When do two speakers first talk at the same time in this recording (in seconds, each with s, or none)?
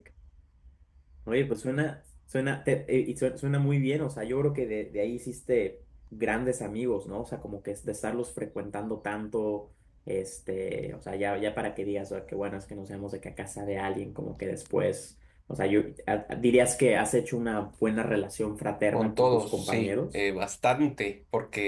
18.9 s